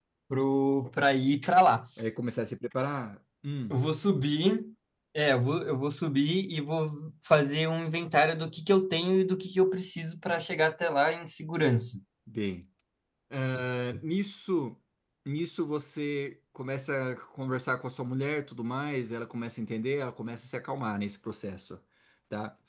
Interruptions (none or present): none